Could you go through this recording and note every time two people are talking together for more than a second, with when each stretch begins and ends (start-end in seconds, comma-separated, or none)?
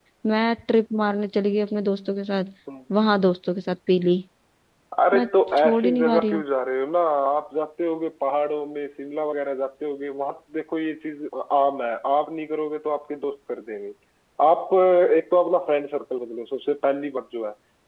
5.1-6.4